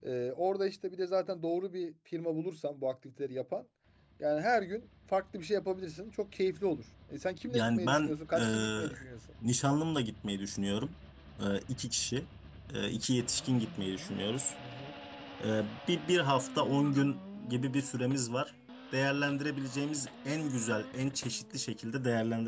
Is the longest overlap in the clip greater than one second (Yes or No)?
Yes